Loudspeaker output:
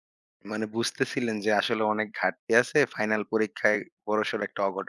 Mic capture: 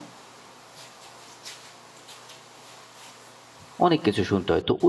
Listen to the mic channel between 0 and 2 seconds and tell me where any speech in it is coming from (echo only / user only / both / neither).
neither